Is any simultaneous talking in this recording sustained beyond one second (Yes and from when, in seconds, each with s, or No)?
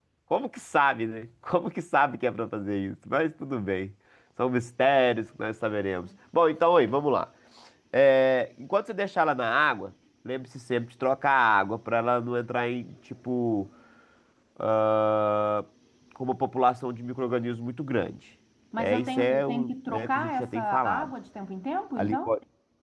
Yes, from 18.8 s